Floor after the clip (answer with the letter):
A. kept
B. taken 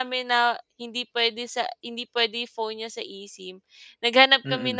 A